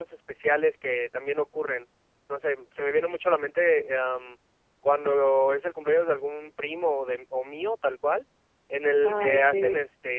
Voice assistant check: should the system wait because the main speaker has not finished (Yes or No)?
Yes